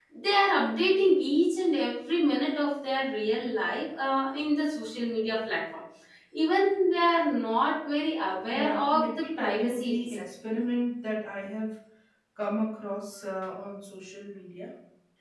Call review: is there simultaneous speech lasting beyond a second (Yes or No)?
Yes